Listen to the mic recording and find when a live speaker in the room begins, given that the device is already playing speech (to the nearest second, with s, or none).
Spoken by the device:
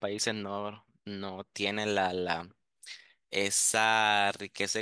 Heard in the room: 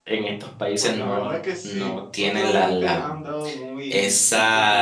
1 s